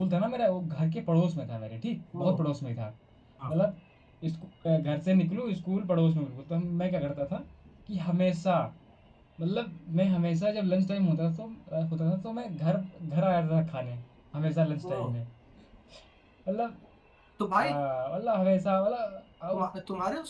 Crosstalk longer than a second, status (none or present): none